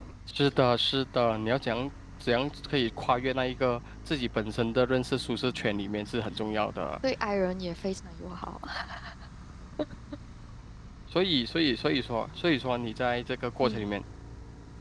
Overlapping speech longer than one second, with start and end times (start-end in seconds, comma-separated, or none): none